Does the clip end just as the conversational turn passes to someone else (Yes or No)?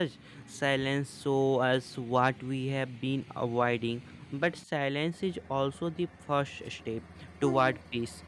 No